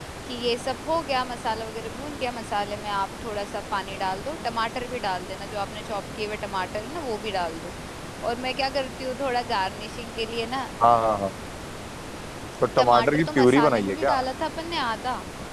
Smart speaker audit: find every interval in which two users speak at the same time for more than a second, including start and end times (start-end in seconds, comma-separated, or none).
12.8-14.1